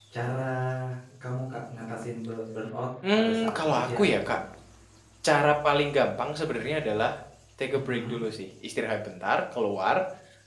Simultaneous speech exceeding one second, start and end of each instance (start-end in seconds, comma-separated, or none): 3.1-4.4